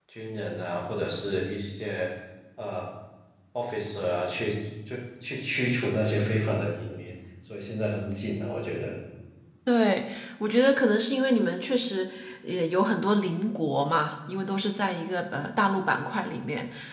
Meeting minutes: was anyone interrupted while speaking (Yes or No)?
No